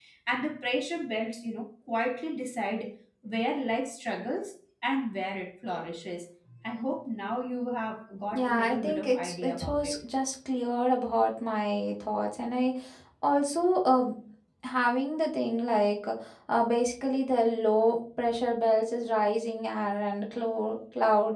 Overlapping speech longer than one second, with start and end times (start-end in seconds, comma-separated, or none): 8.3-10.0